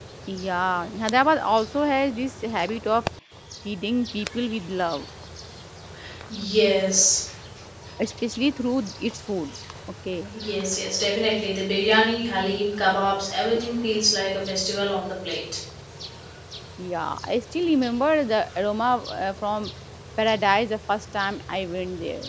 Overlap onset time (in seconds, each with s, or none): none